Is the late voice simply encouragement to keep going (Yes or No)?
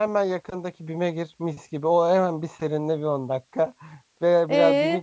No